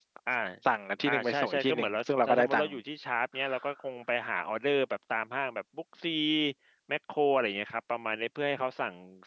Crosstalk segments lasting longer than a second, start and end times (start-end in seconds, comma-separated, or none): 1.1-2.7